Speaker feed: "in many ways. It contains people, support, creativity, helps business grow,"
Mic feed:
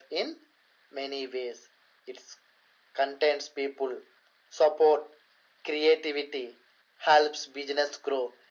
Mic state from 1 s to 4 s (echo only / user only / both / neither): echo only